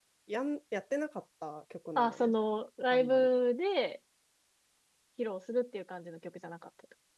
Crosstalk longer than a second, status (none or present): none